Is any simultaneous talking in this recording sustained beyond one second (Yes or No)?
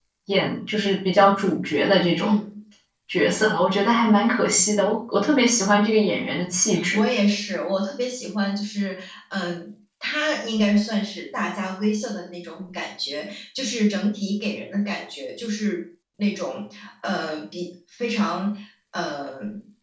No